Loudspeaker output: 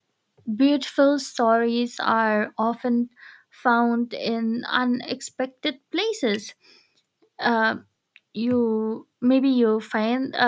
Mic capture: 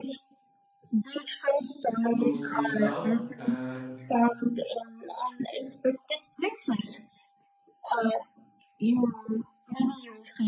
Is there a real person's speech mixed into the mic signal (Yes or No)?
Yes